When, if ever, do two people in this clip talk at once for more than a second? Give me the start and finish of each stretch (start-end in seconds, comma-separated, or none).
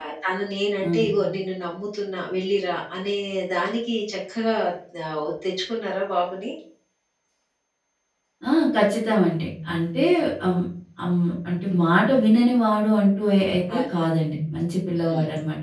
none